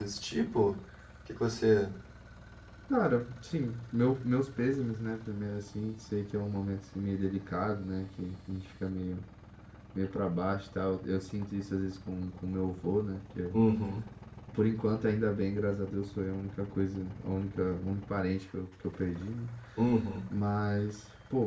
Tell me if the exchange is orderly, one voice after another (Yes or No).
Yes